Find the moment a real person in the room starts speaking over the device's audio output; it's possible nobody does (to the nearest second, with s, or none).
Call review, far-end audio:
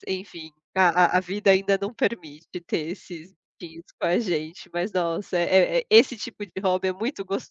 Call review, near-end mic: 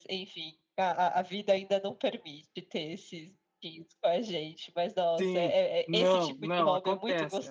5 s